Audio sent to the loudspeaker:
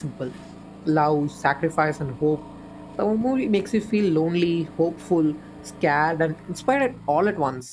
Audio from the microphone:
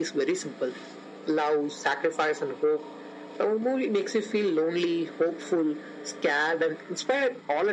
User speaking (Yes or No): No